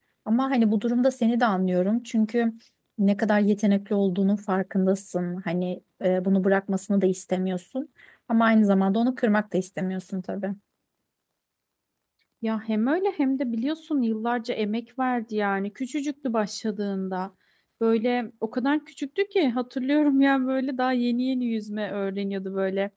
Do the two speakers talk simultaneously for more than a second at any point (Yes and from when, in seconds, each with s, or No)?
No